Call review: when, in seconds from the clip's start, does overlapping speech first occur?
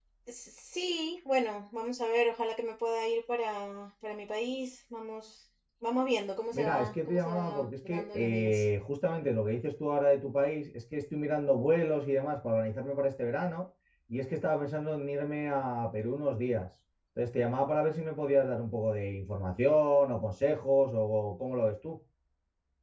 6.5 s

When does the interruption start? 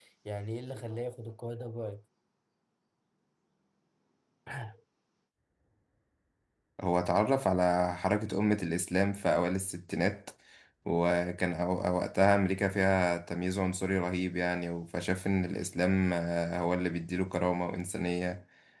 none

